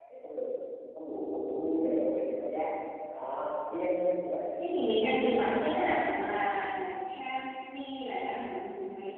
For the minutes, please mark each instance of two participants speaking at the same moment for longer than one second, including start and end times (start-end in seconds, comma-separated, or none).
none